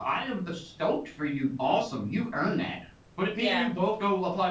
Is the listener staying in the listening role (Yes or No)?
Yes